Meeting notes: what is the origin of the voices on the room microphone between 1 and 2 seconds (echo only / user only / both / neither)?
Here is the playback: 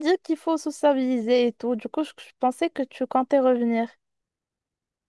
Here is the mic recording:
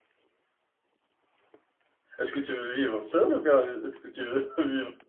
neither